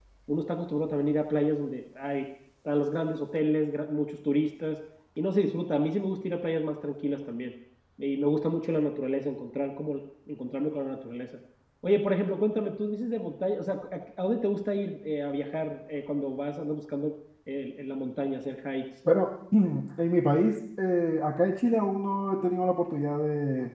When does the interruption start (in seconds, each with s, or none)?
none